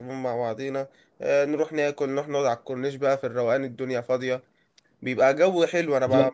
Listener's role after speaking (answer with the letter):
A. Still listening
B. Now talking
A